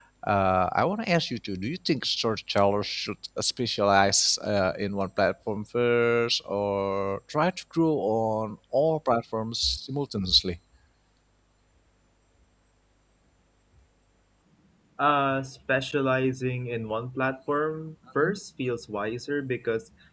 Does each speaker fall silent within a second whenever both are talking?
Yes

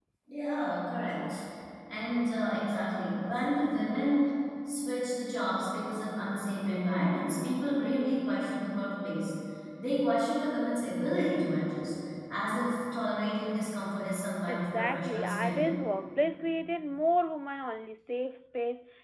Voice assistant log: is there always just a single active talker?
No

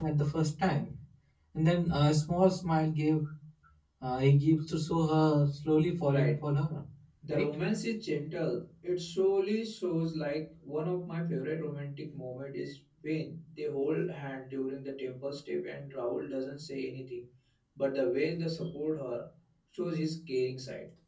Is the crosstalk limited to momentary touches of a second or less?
Yes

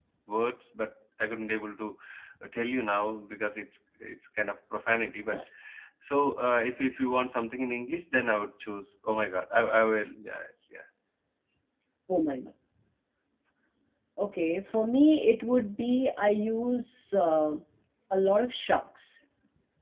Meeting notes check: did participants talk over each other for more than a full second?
No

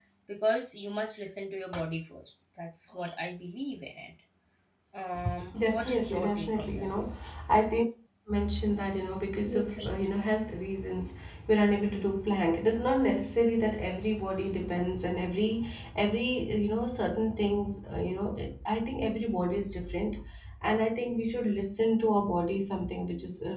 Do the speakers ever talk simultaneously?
Yes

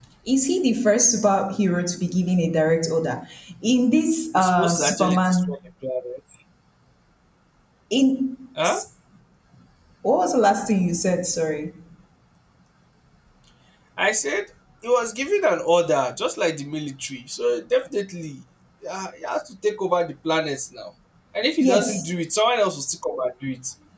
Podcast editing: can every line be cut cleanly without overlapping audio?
No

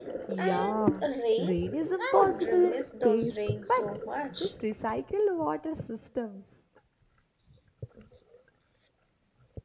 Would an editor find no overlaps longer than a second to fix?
No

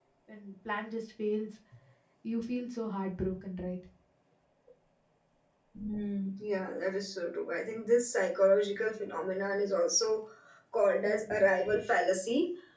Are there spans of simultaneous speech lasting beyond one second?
No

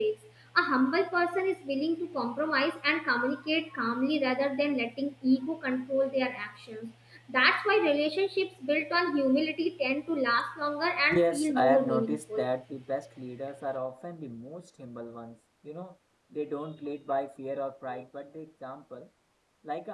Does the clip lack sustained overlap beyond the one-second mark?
No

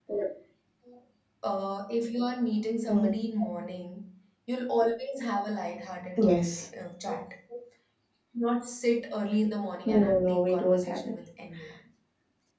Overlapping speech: Yes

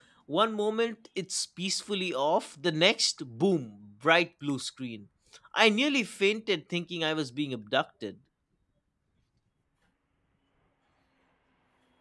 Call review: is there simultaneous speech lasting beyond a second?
No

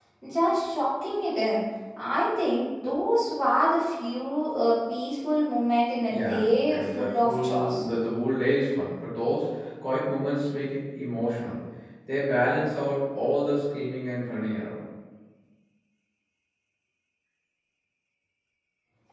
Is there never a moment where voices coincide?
No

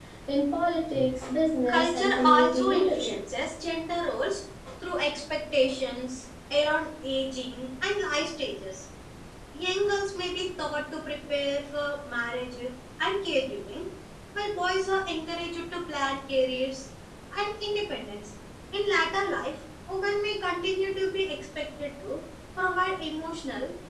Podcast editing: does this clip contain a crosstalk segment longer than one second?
Yes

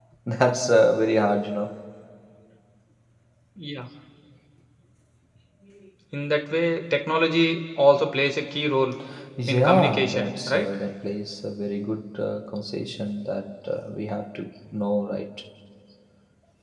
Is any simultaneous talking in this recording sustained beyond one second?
Yes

